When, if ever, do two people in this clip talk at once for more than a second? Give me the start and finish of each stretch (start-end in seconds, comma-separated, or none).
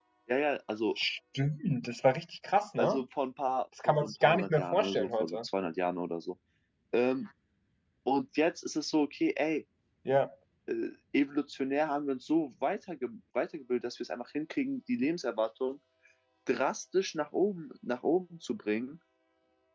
3.9-5.4